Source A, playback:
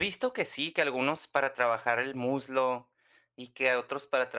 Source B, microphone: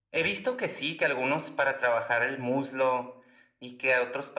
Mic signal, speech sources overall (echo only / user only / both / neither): echo only